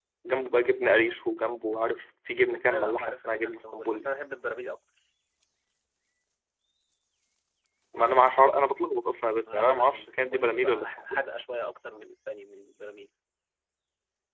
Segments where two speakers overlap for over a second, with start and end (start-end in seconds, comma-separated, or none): 2.7-4.1, 9.5-11.2